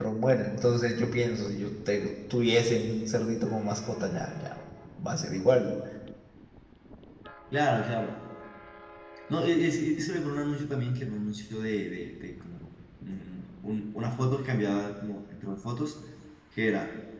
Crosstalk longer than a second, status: none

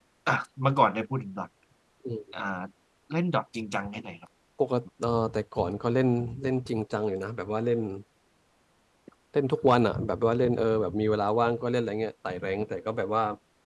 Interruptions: none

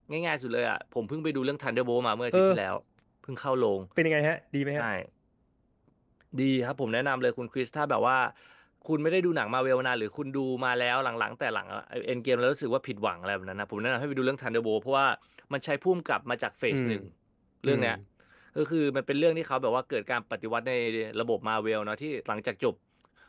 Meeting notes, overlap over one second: none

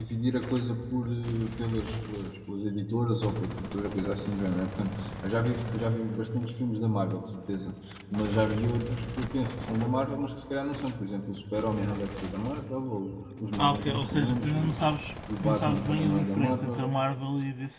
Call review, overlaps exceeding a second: present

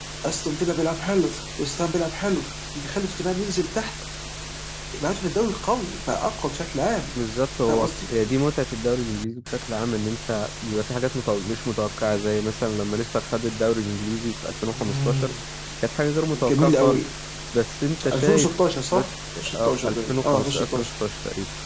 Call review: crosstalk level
present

